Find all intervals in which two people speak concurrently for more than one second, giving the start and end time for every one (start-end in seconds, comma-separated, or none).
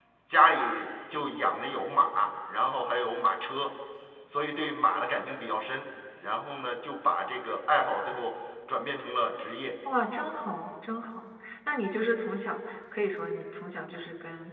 none